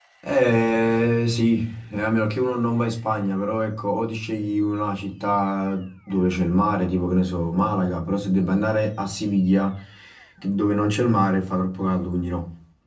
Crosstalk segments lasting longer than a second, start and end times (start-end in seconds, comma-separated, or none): none